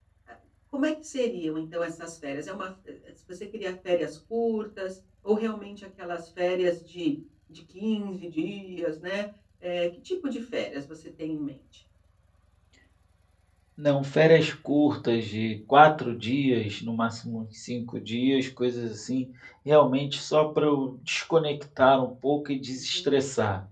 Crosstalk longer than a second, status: none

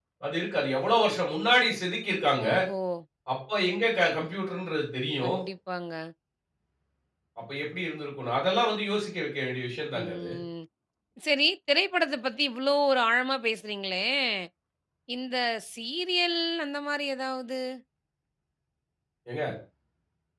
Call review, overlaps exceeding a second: none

